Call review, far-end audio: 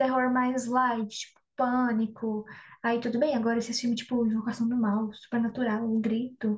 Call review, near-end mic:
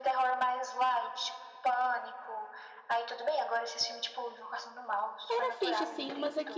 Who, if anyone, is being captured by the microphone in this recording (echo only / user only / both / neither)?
both